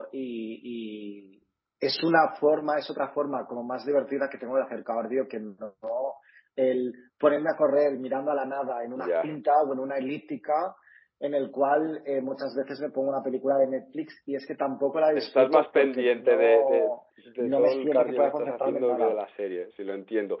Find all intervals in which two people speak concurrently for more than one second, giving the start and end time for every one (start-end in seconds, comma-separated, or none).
15.2-17.0, 17.4-19.2